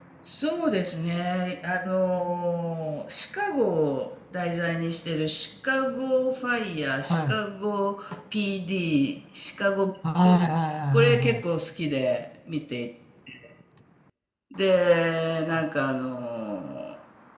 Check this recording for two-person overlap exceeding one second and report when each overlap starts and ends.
none

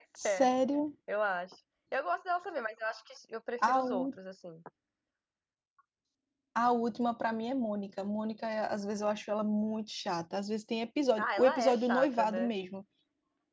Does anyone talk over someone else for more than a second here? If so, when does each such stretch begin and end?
11.2-12.5

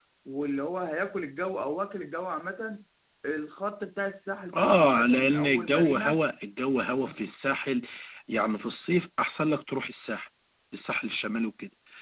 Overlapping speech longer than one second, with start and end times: 4.6-6.2

